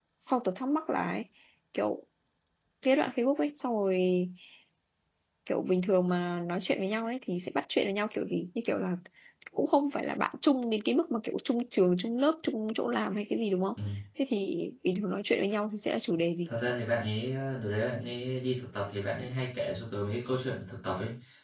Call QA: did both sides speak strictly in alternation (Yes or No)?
Yes